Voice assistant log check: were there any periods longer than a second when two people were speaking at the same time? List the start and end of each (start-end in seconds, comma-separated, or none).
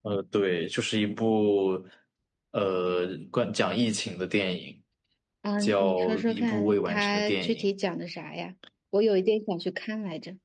5.6-7.7